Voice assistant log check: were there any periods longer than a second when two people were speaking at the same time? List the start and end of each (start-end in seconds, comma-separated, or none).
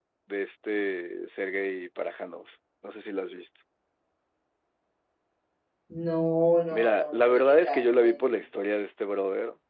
6.7-8.2